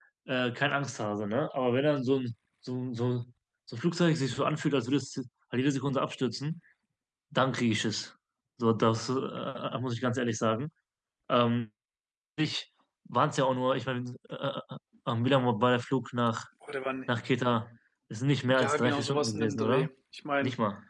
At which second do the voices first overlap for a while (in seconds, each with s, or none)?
18.5 s